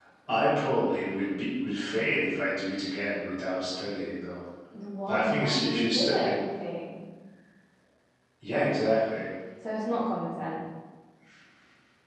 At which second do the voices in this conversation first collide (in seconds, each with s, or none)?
5.1 s